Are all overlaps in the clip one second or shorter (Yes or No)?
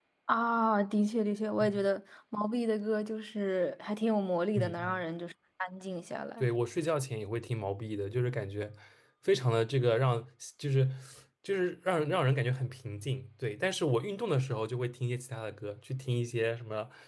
Yes